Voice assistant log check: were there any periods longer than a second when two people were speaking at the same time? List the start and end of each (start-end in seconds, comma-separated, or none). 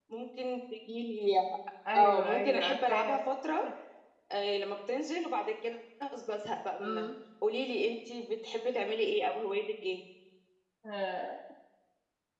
1.9-3.2